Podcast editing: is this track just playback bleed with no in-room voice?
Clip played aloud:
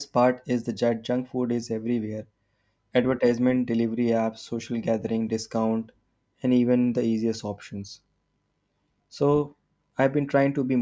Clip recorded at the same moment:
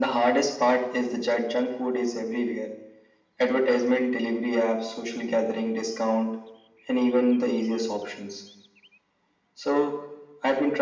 Yes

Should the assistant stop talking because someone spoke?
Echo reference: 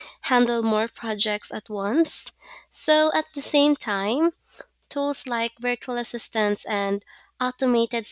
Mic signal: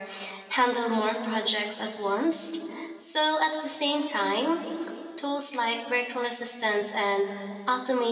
No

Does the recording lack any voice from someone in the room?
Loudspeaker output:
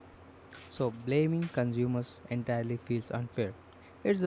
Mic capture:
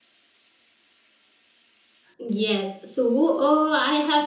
No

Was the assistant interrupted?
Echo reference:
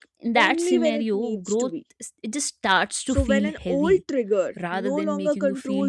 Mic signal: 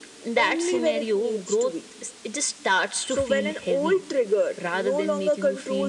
No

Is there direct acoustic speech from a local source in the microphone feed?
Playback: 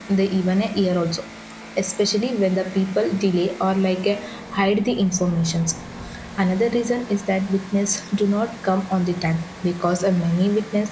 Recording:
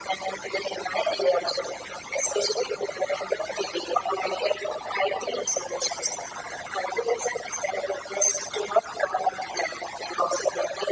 No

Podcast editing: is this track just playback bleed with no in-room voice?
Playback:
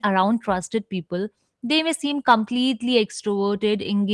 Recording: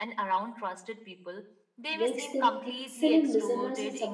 No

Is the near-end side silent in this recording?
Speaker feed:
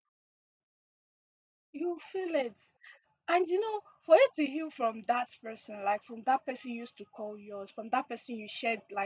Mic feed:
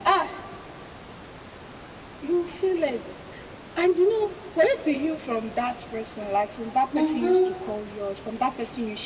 No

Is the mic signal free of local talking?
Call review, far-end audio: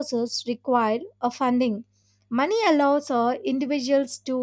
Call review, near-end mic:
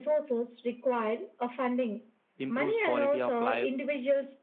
No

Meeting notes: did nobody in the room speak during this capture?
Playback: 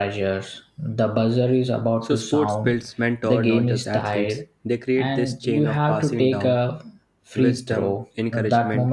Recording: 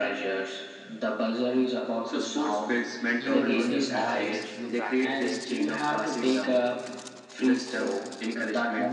No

